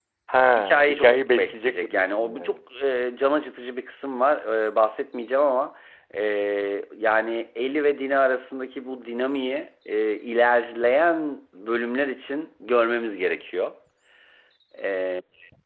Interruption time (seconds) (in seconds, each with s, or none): 0.6 s